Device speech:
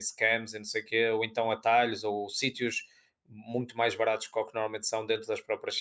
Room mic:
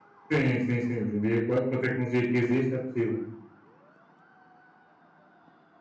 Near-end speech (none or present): present